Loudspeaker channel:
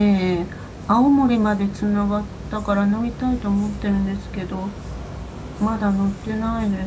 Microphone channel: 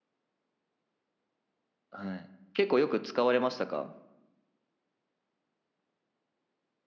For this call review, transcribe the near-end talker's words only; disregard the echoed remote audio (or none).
はい。結構よく使われましたか